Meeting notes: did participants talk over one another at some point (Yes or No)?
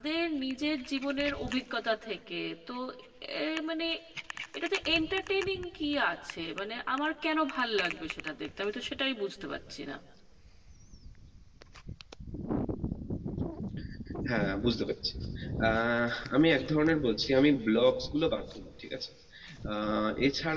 No